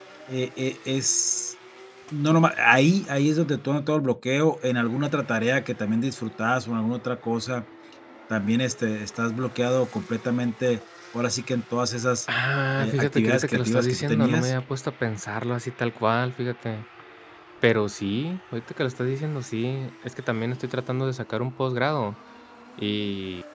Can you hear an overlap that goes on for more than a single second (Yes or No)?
Yes